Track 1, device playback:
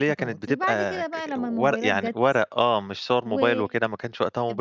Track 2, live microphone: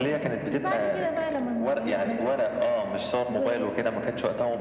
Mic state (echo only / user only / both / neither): echo only